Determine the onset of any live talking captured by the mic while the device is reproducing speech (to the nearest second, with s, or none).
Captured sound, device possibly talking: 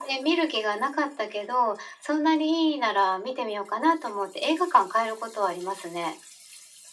none